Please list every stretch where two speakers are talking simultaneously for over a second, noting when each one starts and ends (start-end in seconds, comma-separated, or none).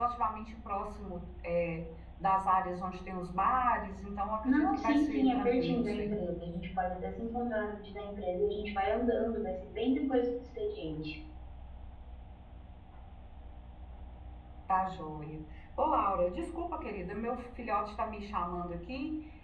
4.4-6.1